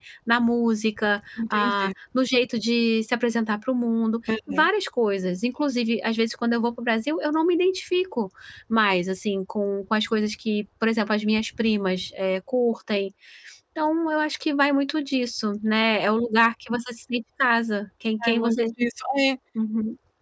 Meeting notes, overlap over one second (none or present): none